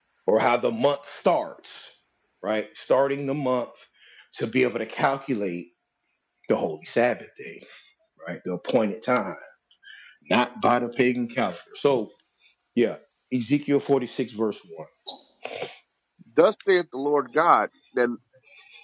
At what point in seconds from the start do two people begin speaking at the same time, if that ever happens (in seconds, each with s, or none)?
none